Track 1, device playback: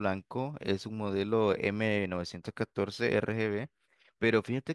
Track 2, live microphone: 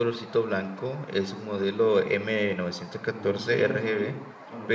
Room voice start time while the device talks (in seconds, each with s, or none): 3.1 s